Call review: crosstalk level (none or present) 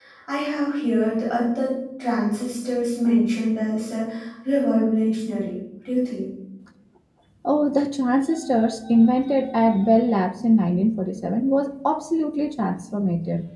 none